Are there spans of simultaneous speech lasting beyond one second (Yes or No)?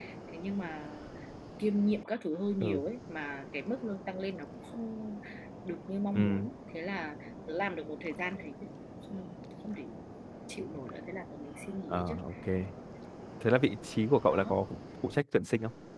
No